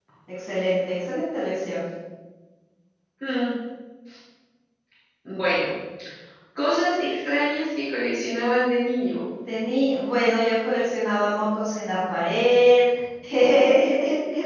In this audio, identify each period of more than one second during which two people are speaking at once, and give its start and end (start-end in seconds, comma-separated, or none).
none